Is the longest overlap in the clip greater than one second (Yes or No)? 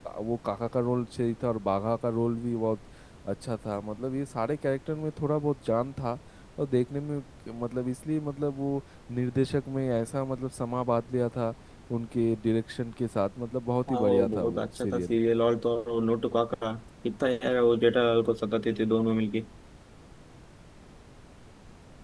Yes